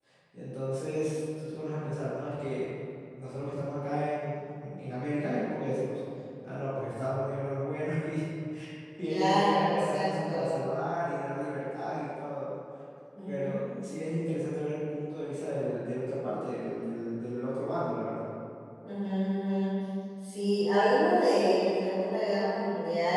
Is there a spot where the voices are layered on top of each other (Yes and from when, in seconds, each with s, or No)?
Yes, from 9.1 s